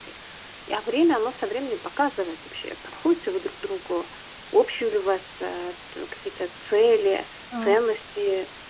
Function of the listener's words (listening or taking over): listening